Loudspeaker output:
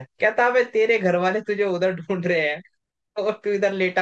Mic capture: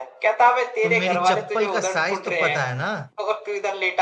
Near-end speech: present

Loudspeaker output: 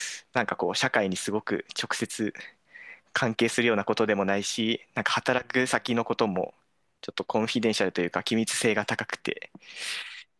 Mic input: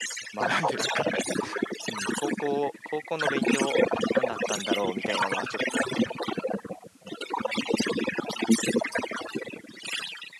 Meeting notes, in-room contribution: present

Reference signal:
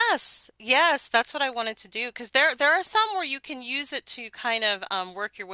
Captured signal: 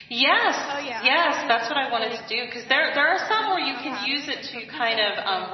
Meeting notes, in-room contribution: present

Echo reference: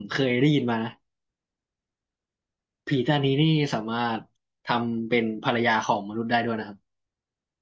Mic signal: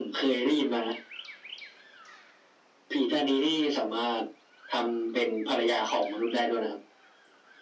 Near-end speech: none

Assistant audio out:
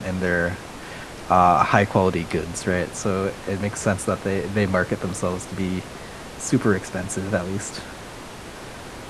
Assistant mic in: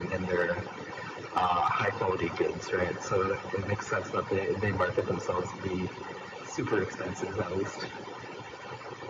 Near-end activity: none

